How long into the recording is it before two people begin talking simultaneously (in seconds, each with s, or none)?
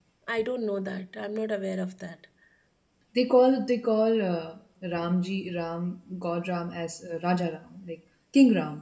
none